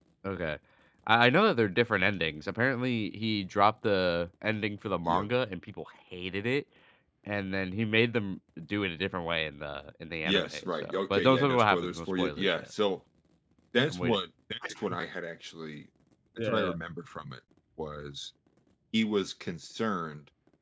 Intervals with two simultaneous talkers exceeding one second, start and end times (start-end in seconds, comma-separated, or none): 10.2-12.7